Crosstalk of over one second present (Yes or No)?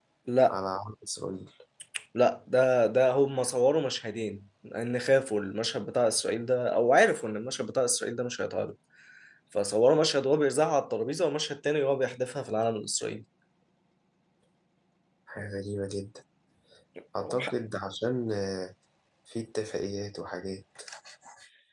No